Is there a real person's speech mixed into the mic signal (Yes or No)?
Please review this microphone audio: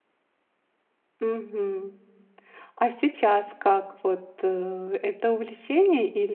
Yes